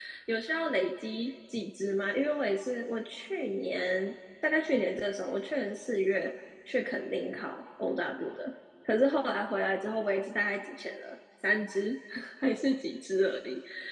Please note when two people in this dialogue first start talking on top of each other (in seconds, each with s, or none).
none